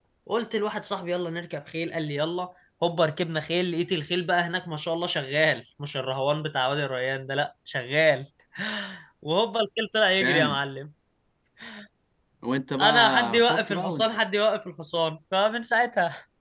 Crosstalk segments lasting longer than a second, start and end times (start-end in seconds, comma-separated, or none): 12.8-14.0